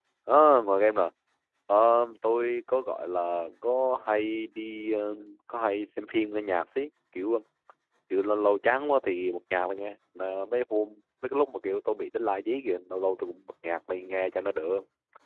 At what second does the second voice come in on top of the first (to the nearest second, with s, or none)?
none